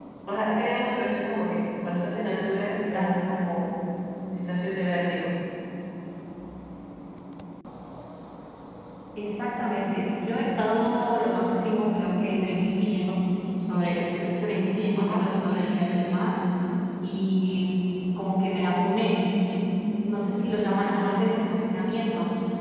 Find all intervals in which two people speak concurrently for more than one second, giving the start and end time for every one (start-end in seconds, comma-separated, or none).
none